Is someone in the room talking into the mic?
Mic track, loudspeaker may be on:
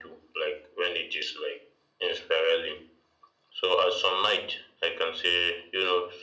No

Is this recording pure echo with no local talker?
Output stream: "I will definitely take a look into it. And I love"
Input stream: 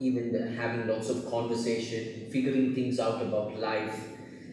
No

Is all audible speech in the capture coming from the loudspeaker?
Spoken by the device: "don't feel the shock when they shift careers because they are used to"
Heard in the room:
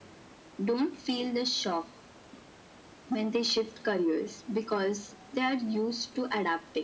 Yes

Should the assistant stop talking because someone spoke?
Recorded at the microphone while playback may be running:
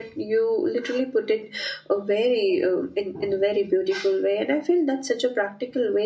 Yes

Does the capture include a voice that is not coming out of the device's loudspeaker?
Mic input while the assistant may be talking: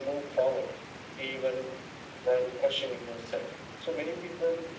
No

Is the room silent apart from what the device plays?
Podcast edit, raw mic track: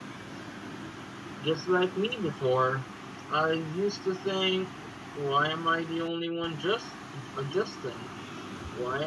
Yes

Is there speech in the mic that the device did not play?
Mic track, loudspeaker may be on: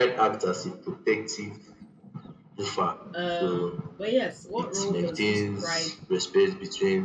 Yes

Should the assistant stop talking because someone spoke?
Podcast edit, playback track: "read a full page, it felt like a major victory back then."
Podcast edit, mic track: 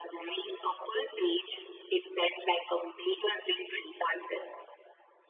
No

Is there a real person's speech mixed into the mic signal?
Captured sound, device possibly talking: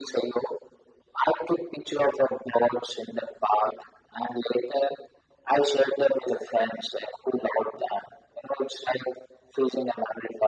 No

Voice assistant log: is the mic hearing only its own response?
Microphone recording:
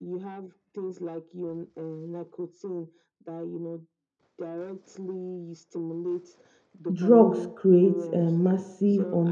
No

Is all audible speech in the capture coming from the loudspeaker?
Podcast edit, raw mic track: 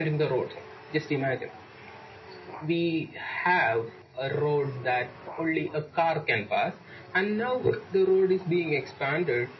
Yes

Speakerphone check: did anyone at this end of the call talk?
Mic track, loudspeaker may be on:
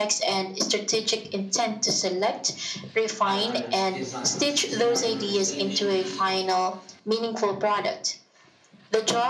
Yes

